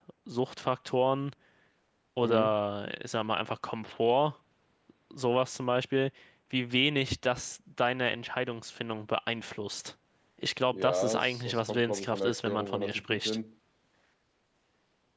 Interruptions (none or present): present